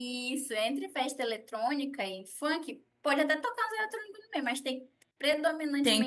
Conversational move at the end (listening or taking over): taking over